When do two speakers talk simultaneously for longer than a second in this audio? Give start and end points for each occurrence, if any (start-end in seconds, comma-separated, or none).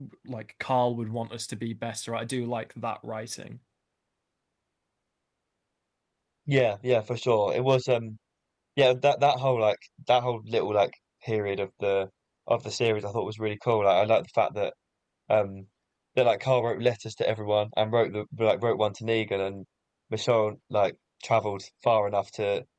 none